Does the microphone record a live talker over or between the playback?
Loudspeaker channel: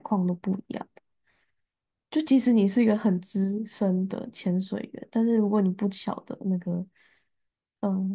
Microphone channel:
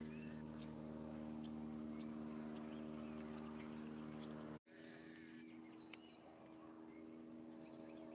No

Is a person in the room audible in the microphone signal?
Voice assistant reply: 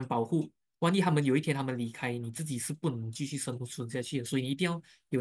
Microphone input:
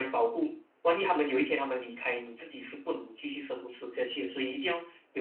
No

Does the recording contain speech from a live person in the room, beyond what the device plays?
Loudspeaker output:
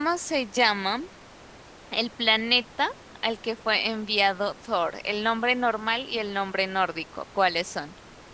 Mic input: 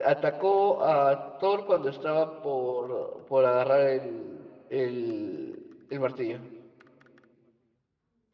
Yes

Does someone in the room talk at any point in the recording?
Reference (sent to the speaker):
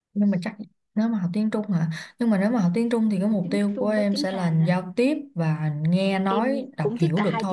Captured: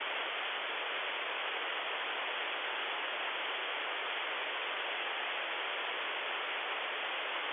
No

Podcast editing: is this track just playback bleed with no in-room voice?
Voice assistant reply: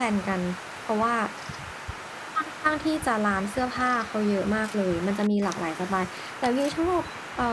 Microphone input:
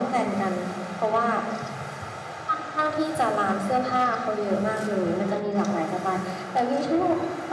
Yes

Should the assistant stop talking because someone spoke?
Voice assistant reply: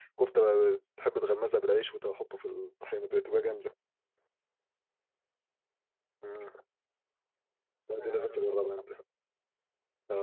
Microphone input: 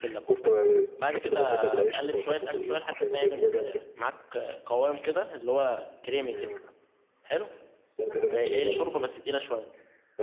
Yes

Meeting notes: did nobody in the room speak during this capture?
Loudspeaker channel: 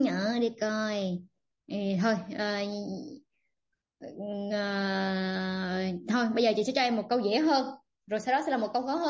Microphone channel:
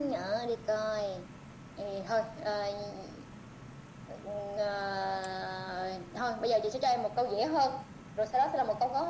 Yes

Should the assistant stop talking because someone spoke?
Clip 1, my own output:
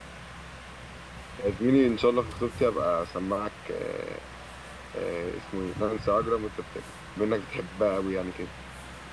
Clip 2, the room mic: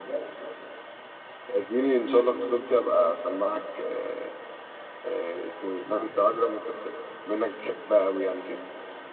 No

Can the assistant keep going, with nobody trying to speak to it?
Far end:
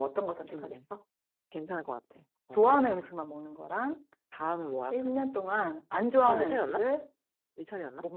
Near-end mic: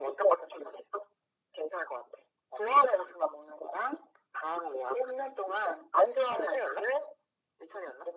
Yes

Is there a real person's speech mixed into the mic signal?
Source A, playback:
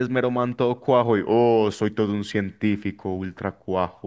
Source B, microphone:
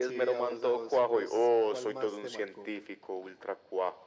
Yes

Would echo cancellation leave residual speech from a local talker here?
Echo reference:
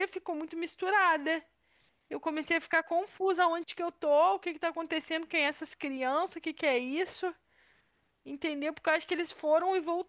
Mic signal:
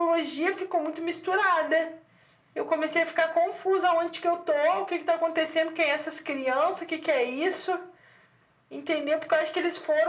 No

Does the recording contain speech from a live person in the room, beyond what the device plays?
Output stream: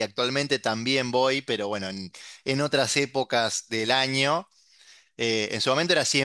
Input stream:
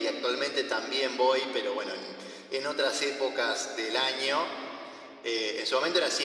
No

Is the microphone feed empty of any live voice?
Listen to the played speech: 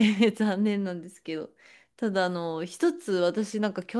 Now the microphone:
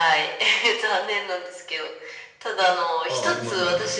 No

